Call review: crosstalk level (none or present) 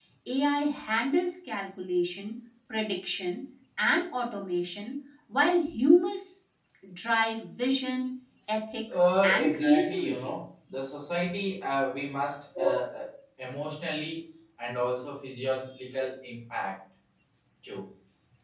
present